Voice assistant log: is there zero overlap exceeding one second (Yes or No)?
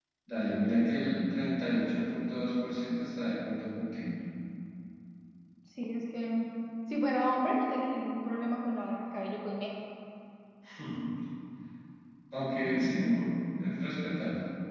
Yes